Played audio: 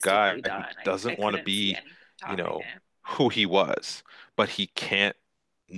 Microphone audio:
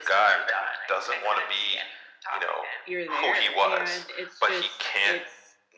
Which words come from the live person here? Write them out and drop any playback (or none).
you're there. And it's just it's